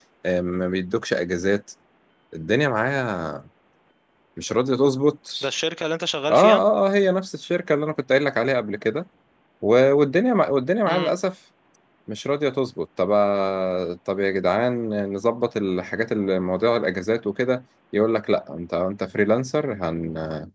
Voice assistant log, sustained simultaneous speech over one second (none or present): none